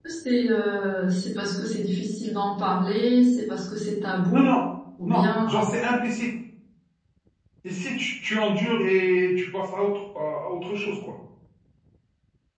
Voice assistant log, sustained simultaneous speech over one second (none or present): none